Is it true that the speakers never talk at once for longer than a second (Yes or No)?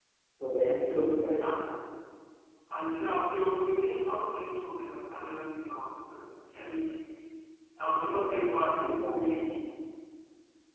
No